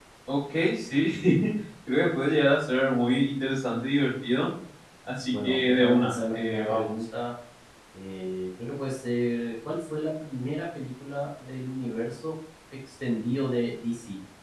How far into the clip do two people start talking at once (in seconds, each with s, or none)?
5.3 s